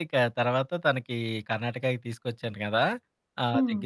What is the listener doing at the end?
listening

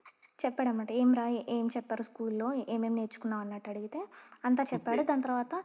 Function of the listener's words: listening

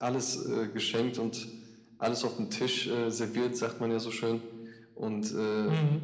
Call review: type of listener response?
listening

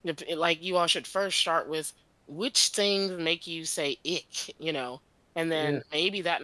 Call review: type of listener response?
listening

